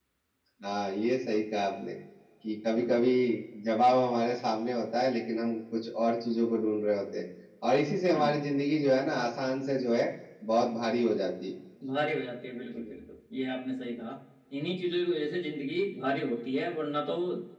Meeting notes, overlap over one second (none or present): none